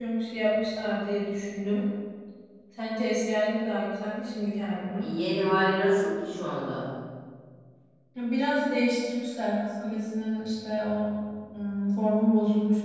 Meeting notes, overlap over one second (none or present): none